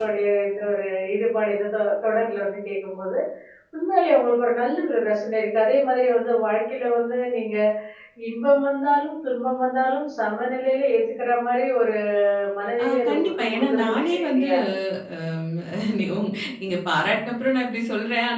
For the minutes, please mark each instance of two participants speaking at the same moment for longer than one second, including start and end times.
12.8-14.5

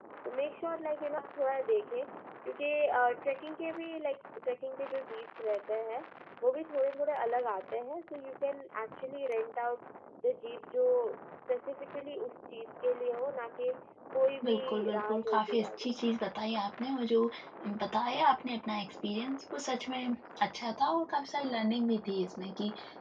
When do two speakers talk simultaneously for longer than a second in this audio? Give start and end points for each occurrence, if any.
14.4-15.9

